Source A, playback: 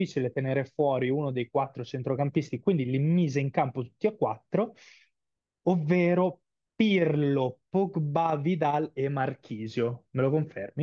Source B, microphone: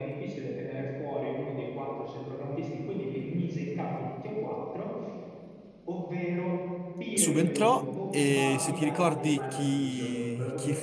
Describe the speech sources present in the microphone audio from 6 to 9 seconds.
both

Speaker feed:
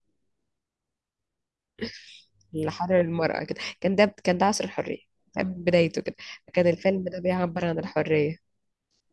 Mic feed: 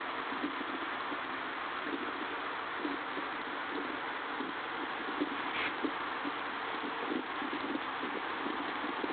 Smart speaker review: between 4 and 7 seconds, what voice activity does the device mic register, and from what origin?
neither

